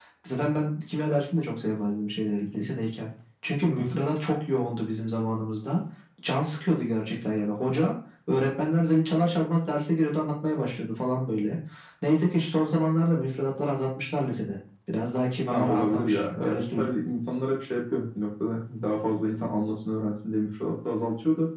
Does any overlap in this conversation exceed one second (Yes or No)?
Yes